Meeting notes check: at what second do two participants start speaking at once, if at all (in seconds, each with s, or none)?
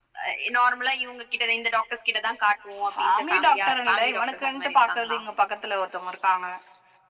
3.0 s